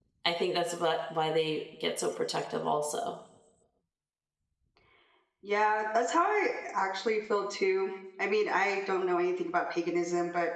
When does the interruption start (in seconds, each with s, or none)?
none